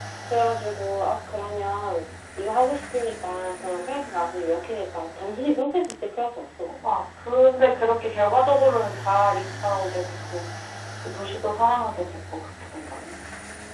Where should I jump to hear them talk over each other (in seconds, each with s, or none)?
none